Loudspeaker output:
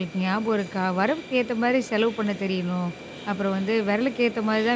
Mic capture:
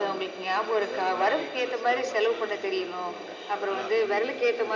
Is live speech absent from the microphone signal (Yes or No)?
No